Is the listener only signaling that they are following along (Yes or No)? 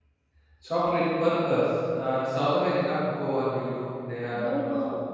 No